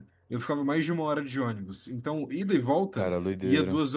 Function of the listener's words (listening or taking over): listening